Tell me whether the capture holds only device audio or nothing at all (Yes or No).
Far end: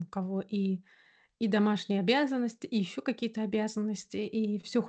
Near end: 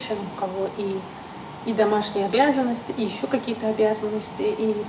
Yes